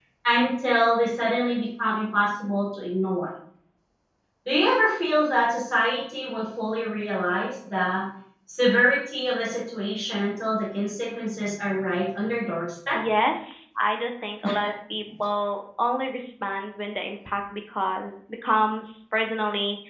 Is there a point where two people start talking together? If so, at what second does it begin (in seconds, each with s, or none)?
none